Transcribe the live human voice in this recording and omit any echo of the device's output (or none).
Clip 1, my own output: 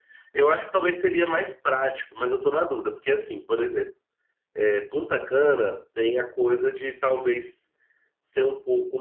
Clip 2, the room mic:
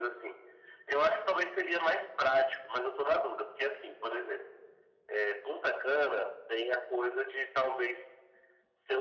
none